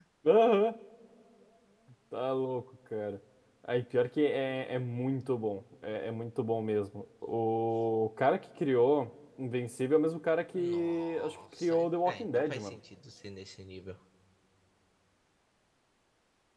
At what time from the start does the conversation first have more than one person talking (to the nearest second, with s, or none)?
11 s